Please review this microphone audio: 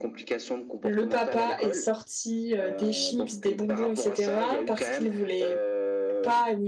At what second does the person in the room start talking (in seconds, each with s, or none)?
0.8 s